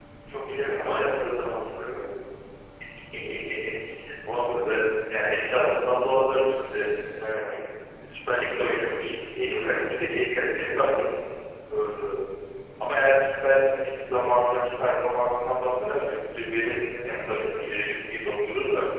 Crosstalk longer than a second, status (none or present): none